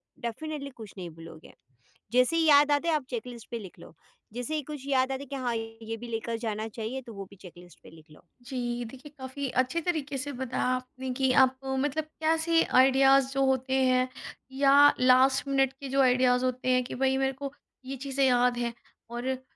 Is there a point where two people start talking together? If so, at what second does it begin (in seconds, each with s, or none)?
none